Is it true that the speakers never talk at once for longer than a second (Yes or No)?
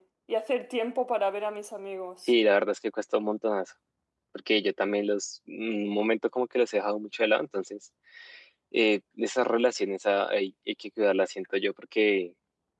Yes